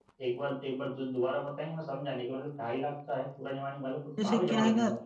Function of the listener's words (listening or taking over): taking over